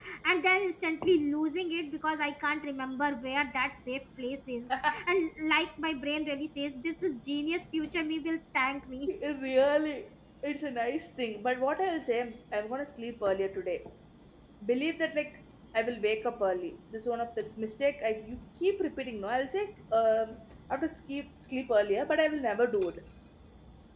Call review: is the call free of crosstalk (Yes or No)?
Yes